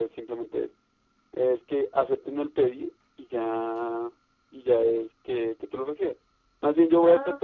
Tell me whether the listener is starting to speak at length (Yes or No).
No